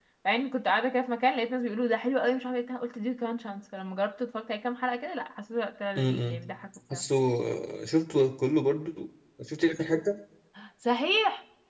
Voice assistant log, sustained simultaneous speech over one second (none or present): none